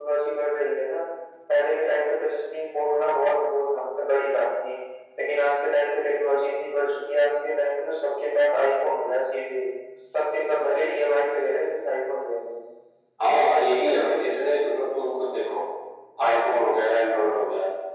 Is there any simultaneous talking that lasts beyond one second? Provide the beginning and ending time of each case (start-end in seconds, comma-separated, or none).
none